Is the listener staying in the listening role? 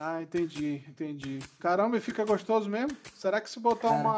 Yes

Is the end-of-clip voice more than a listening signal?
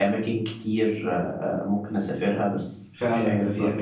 Yes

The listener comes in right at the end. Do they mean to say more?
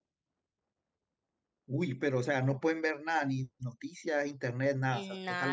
Yes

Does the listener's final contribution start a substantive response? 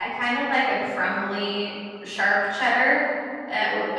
No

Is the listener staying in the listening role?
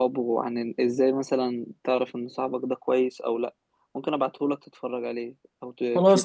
No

